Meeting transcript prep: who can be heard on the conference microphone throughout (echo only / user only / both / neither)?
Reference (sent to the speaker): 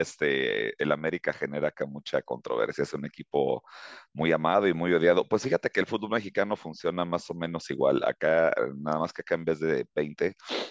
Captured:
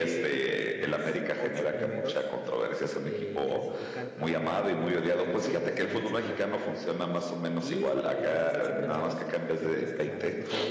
both